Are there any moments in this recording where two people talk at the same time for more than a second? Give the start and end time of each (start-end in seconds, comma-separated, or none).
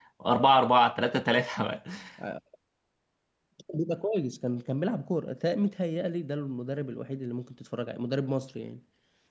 none